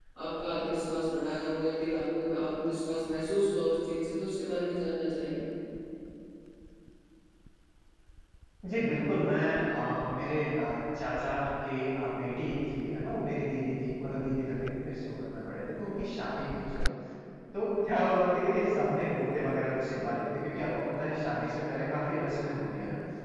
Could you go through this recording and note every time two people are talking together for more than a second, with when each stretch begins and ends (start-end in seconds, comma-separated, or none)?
none